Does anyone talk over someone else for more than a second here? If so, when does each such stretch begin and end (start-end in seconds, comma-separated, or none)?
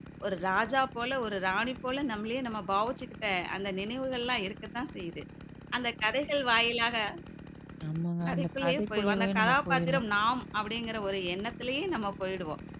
8.3-10.0